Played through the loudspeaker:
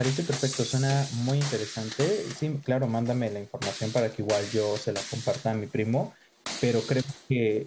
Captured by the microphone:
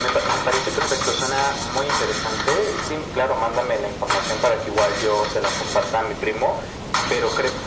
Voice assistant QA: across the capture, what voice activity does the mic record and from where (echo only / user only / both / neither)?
echo only